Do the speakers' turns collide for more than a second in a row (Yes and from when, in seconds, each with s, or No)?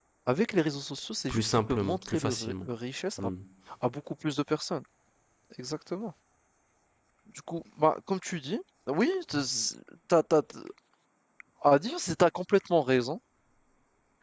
Yes, from 1.3 s